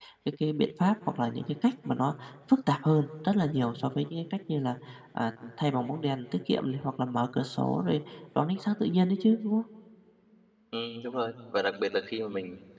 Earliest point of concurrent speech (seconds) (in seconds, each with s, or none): none